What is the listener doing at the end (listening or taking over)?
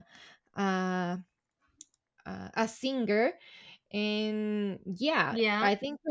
listening